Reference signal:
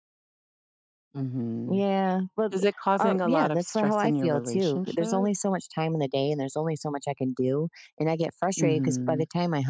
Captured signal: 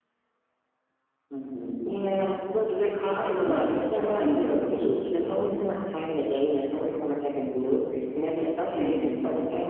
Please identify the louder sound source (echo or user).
echo